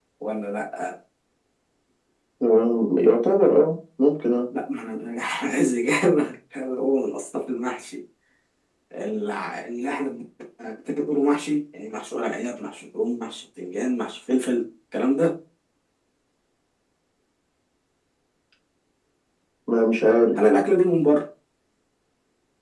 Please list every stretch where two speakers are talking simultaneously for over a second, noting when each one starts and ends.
none

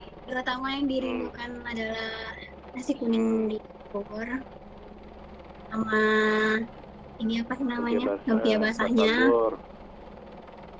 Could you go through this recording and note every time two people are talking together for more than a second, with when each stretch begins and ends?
7.8-9.1

